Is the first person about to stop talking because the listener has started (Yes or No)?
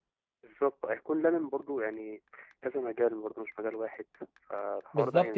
Yes